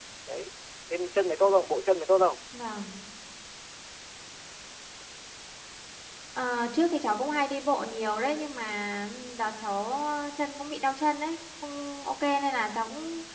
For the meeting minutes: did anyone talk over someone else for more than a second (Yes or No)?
No